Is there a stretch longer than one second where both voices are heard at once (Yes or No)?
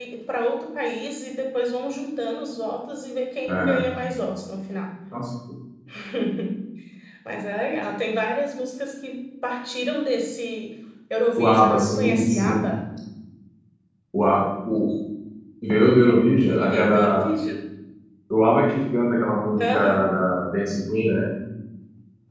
Yes